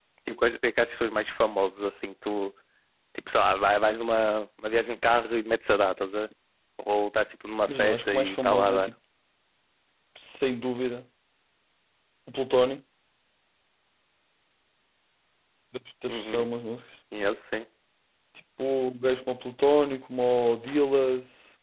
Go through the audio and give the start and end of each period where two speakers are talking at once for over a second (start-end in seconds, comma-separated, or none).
7.7-8.9